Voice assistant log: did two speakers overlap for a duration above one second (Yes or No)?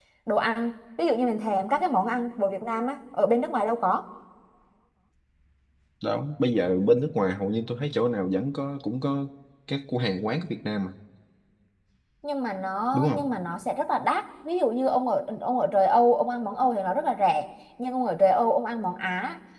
No